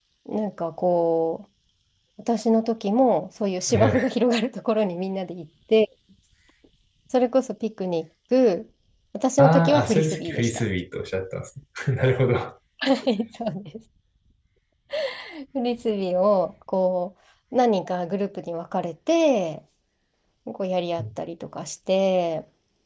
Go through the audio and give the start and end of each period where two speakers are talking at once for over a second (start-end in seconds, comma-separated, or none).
9.4-10.6